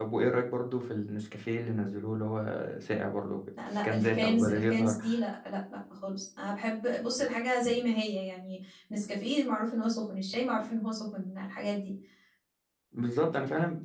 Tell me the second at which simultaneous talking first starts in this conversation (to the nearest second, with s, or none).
4 s